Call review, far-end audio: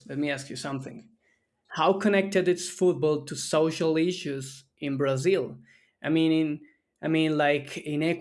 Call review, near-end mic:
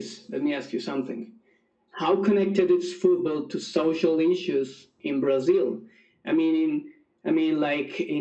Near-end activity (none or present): none